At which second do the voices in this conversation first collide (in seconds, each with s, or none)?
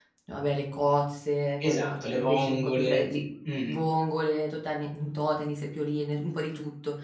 1.6 s